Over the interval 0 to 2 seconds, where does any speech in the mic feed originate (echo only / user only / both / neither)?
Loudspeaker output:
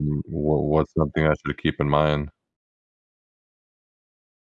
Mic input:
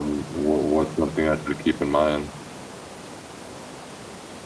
echo only